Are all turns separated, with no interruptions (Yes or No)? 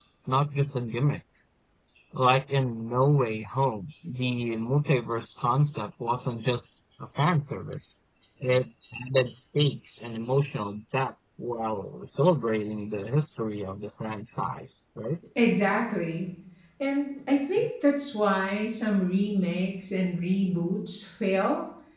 Yes